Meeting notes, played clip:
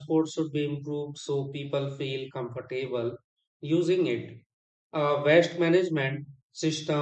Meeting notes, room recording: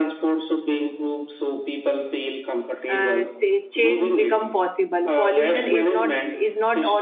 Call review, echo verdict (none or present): present